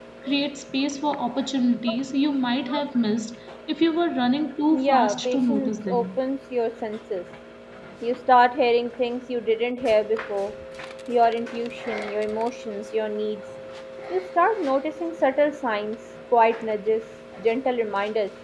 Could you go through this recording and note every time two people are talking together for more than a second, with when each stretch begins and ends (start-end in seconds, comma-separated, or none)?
4.7-6.2